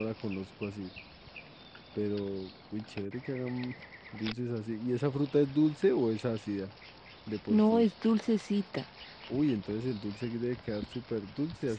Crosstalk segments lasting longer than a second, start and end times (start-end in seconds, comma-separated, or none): none